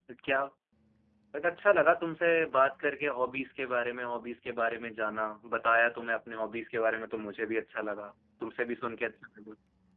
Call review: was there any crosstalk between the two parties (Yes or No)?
No